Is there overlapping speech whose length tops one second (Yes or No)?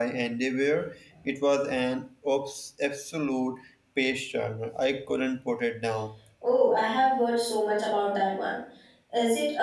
No